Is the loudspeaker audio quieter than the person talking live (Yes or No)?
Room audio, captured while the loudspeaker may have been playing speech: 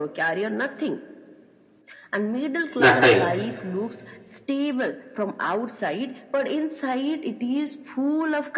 Yes